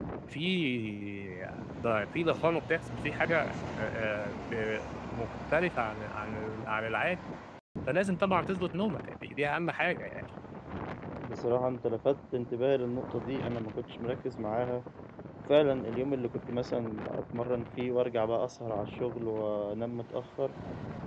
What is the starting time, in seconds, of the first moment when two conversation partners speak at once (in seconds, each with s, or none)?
none